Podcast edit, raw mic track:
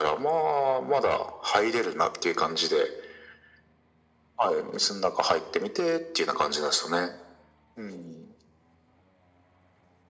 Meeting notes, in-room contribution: none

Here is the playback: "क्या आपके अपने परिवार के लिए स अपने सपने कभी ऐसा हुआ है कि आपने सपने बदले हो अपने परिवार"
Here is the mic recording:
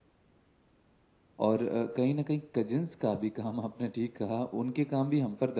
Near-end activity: present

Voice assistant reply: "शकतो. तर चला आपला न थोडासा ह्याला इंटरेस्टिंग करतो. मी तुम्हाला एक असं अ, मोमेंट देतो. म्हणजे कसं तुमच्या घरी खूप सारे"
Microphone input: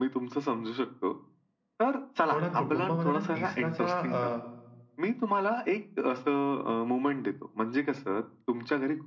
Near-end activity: present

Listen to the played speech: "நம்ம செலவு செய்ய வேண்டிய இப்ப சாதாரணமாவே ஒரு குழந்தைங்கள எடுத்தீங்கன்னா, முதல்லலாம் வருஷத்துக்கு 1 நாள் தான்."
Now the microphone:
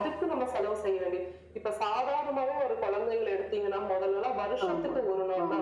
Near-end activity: present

